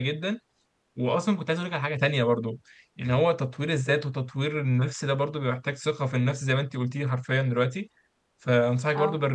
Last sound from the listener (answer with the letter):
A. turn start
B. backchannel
B